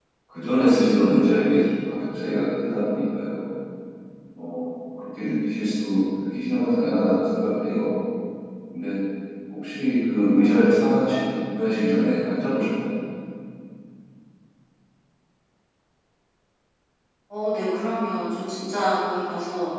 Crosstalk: none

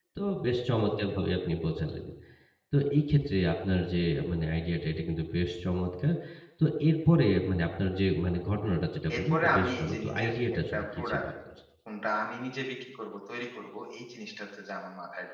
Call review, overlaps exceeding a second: present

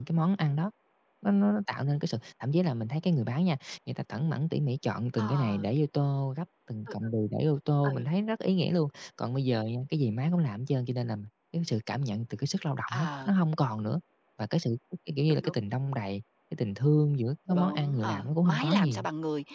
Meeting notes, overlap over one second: present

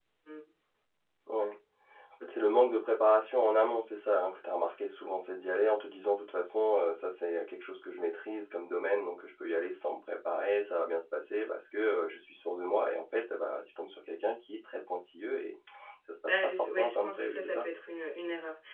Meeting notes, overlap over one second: present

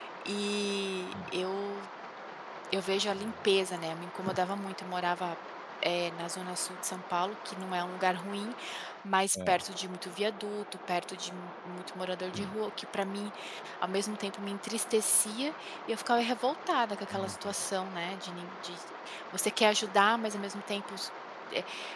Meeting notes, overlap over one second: none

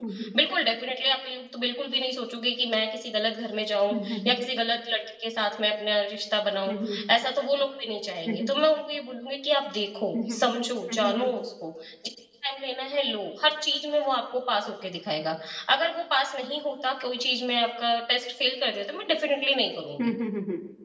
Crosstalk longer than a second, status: none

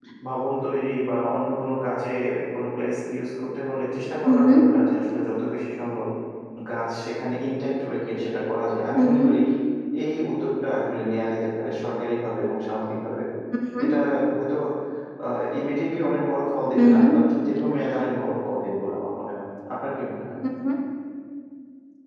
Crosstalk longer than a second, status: none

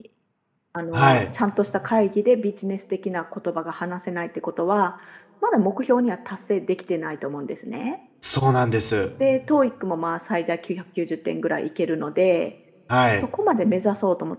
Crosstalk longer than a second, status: none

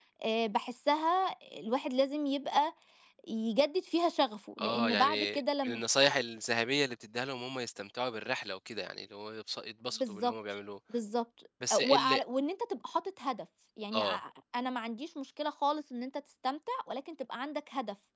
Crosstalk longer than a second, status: present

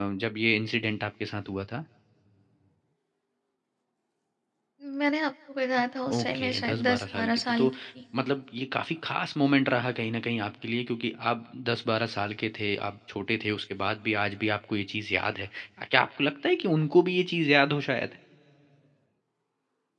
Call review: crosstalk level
present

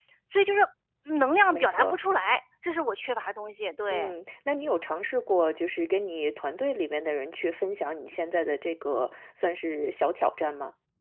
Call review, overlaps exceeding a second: none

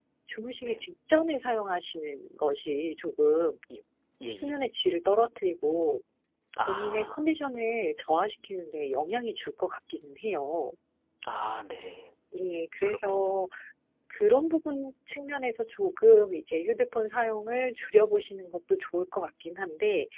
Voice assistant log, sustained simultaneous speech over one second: none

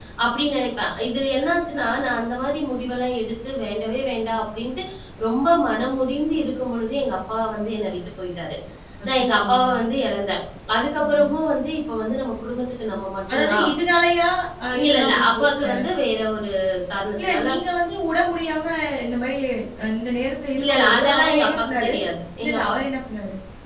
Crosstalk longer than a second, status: present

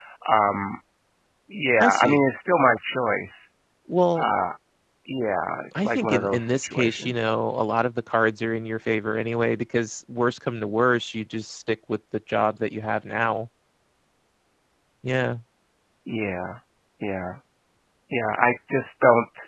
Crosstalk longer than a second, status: present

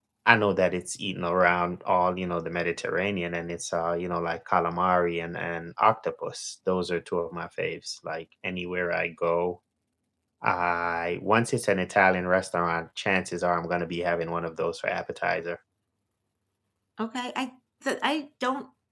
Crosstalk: none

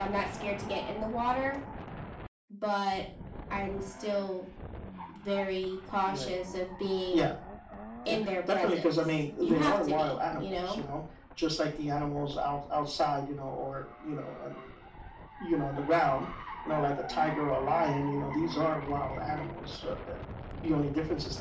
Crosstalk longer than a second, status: present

